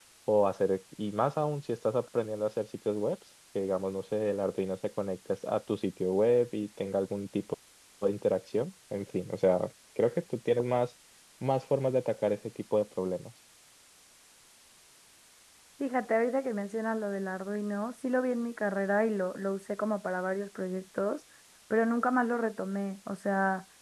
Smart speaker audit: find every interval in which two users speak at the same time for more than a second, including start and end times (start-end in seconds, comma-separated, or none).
none